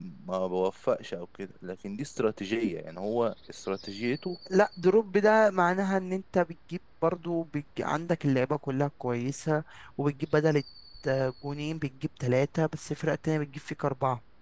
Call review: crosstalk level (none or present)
none